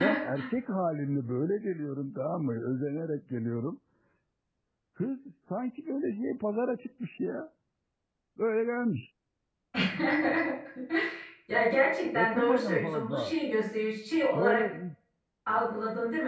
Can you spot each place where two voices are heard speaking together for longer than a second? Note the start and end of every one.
12.2-13.4

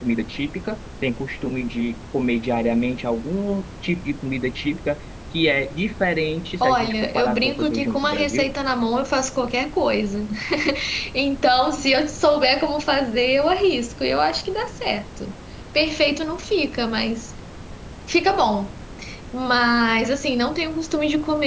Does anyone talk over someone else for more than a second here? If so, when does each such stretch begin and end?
6.6-8.5

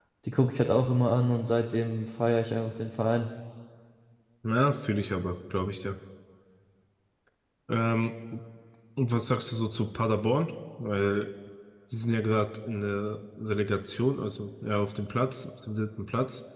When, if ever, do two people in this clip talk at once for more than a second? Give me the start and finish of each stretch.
none

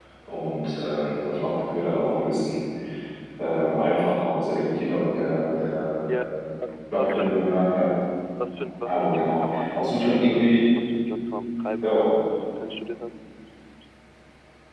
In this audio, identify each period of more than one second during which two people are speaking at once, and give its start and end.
8.8-10.6

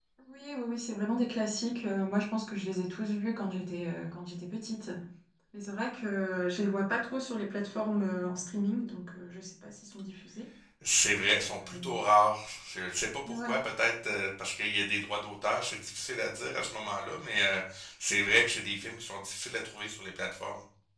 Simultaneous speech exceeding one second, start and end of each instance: none

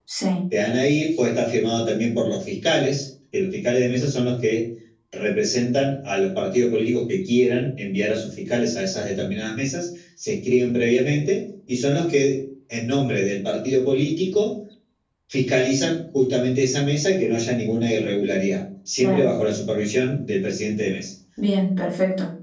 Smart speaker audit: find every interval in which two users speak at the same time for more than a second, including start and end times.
none

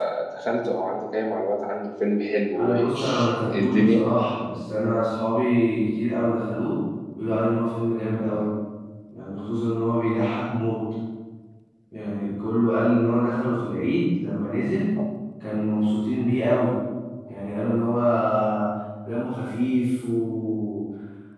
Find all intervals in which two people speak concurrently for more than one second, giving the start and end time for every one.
2.6-4.0

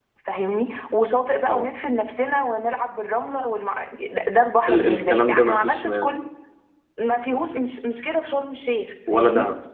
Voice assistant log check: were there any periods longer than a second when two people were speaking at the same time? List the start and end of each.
4.7-6.1

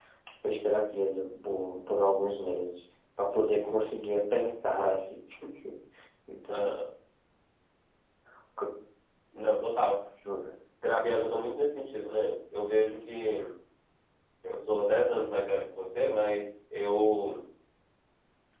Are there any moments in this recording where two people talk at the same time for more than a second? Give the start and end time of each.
none

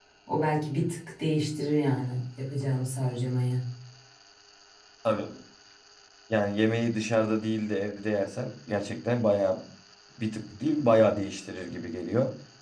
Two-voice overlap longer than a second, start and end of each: none

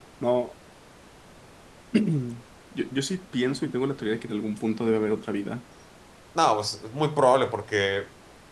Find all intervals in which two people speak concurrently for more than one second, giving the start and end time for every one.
none

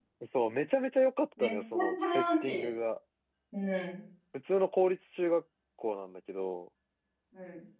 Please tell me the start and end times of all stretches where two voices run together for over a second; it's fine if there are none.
1.4-2.7

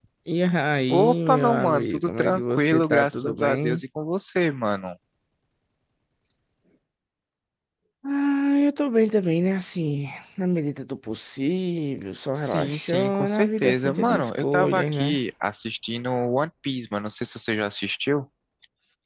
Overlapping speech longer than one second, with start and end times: 0.9-3.8, 12.3-15.2

